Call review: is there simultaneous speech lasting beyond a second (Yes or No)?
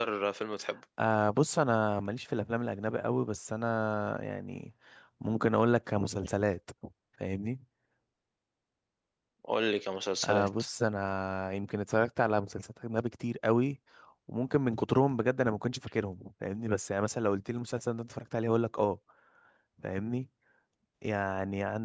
No